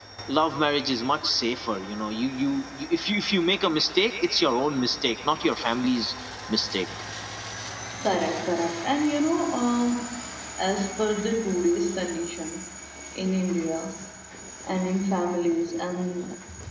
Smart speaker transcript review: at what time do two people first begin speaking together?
none

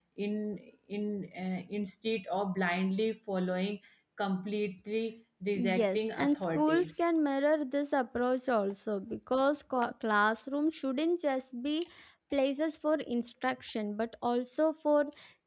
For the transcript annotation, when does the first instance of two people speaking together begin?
5.6 s

